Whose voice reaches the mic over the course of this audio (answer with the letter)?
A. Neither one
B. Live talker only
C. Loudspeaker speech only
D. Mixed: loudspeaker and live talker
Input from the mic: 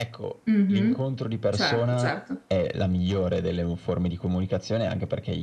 D